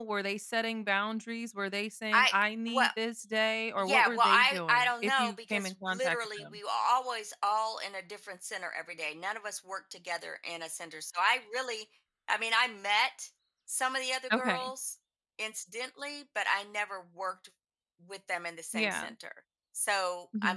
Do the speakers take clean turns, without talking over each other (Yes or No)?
No